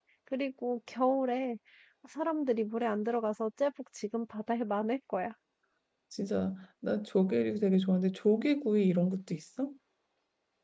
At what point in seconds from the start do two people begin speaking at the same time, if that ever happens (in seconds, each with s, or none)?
none